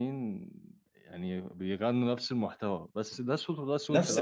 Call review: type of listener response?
taking over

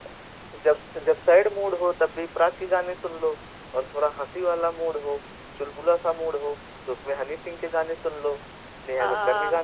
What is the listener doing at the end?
taking over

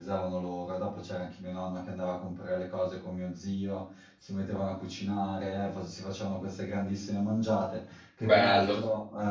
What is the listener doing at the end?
listening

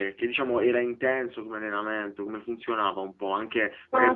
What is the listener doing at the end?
taking over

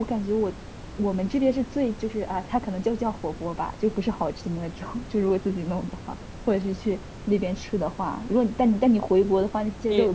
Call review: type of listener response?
taking over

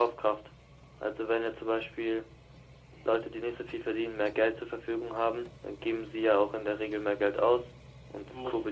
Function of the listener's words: taking over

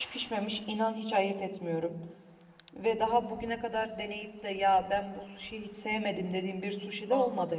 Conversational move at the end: taking over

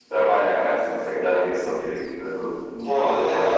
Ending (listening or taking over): taking over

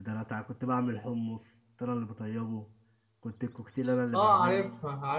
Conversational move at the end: taking over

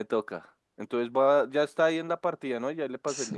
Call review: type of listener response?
taking over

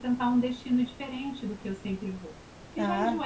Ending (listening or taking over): listening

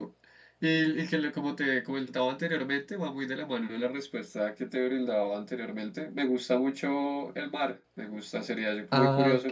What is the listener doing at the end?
listening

